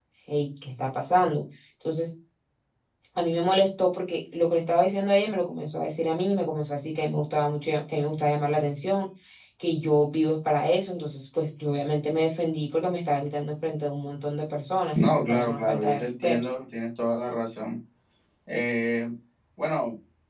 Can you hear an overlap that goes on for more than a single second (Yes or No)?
Yes